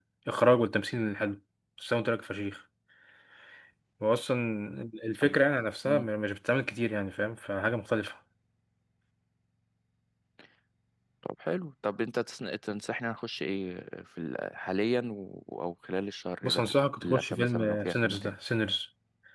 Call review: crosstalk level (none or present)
present